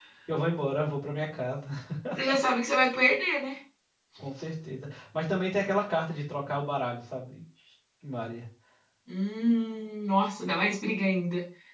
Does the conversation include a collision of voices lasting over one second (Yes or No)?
No